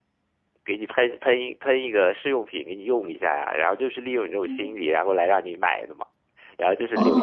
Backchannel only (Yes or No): No